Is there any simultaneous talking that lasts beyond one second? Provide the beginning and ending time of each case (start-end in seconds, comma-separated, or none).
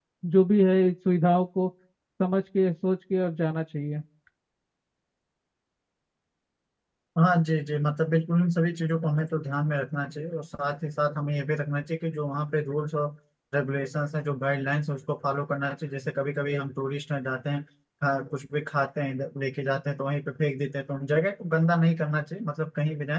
none